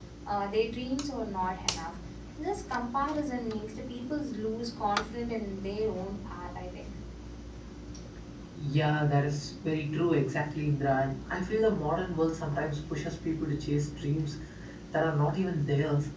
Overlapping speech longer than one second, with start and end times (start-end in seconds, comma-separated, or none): none